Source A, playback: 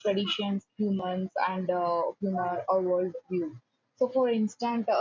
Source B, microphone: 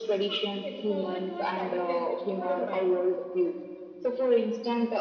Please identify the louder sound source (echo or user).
echo